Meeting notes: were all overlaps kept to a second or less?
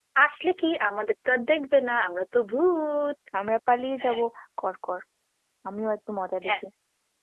Yes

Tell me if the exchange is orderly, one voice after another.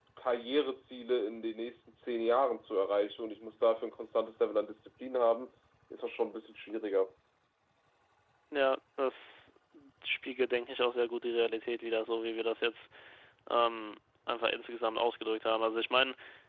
Yes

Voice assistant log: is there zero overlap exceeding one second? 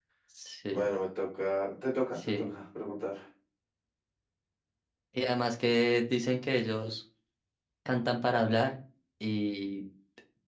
Yes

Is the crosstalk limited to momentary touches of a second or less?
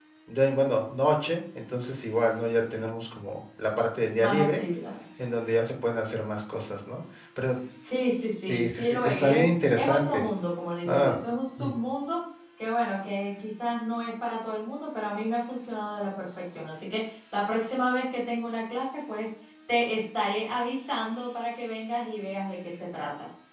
No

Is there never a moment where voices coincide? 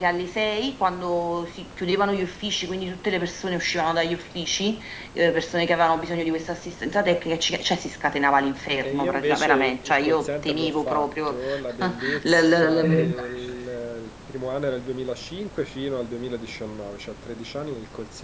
No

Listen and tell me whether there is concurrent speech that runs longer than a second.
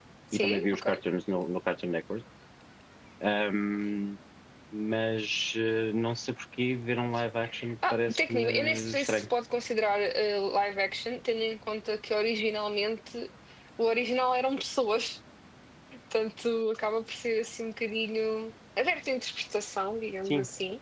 Yes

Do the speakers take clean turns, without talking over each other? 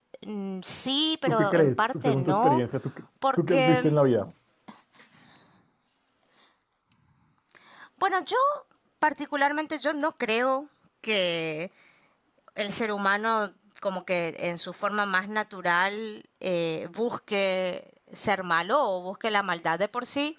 No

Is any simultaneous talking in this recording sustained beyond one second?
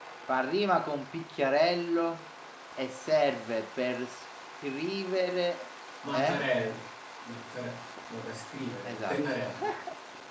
No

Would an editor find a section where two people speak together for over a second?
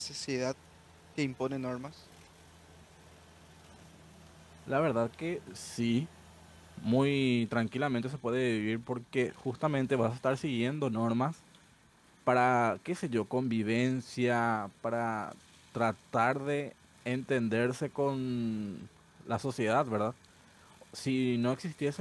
No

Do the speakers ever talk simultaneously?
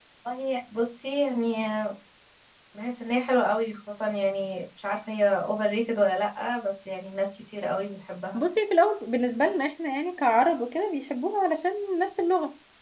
No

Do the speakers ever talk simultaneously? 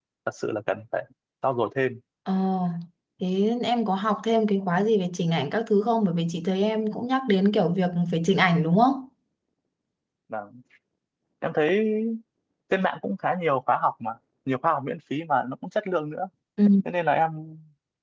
No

